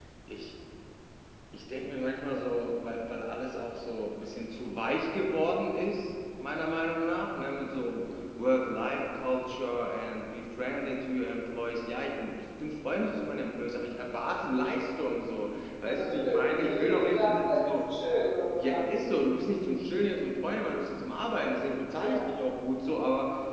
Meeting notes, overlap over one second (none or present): present